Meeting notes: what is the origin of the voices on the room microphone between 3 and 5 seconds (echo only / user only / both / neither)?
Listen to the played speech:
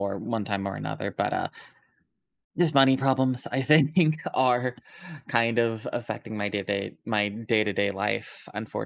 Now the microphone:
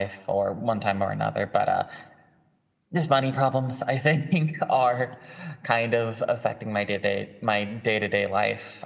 echo only